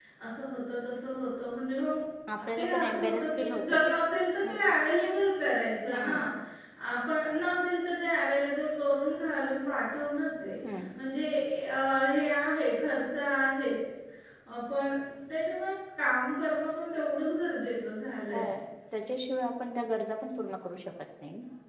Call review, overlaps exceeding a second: present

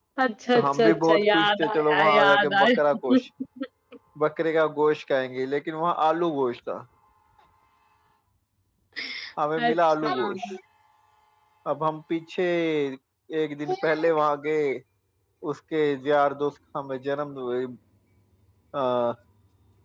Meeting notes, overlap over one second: present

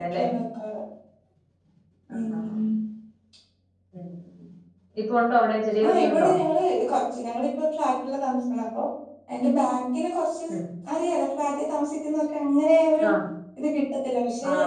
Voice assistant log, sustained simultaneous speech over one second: none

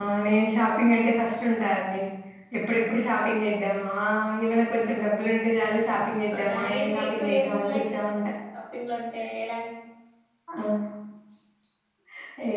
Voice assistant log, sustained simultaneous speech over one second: present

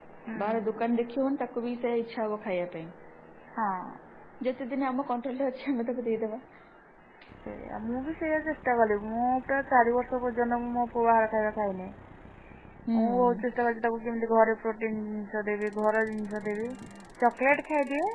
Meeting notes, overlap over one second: none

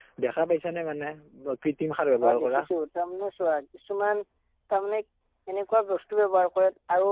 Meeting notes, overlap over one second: none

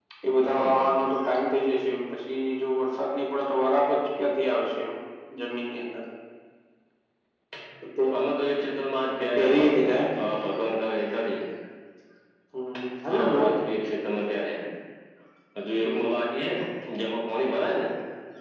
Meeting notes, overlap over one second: none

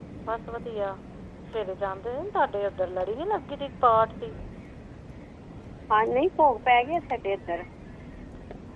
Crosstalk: none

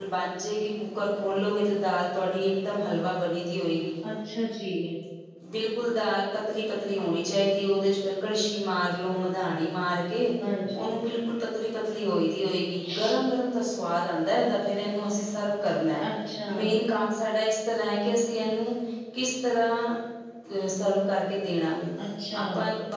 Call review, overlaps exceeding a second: none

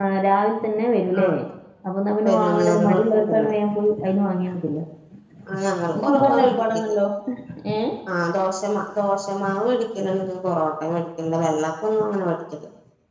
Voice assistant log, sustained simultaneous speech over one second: present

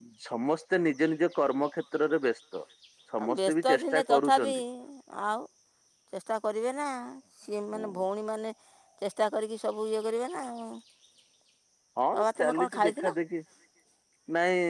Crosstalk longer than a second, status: present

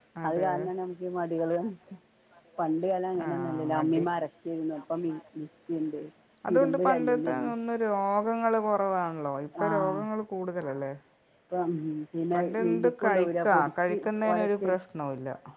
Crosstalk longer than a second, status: present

